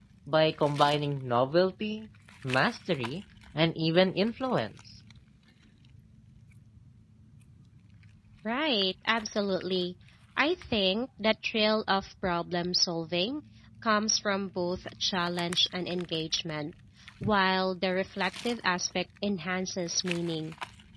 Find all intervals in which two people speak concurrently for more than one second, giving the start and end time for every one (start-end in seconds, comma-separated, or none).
none